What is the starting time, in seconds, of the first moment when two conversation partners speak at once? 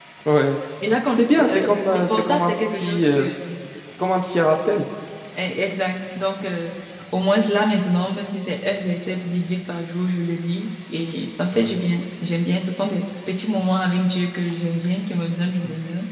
1.2 s

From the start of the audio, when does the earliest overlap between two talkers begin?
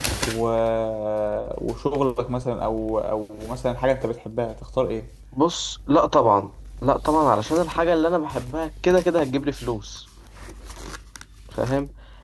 none

